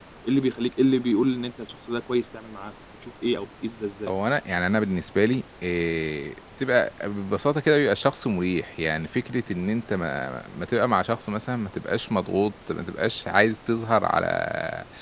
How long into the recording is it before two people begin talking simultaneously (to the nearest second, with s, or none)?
none